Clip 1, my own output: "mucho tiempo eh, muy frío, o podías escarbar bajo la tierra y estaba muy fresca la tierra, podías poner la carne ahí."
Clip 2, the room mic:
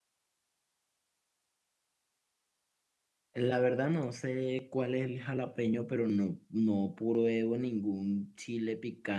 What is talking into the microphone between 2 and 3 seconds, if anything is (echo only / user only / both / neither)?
neither